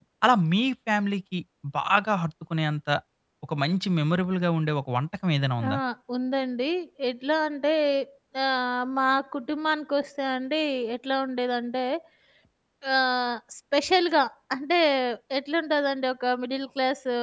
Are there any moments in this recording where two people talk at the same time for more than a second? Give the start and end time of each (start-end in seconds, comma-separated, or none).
none